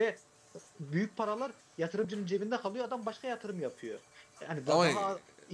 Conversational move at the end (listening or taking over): listening